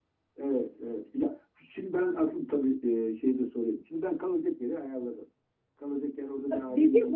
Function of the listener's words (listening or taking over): taking over